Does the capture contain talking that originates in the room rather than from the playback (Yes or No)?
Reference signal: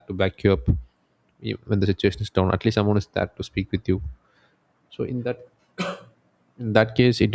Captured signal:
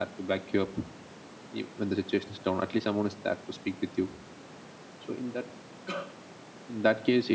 No